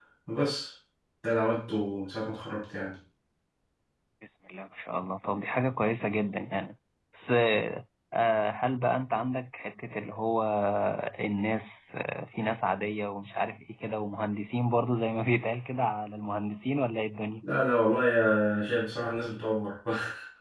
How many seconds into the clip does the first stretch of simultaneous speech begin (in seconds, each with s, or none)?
none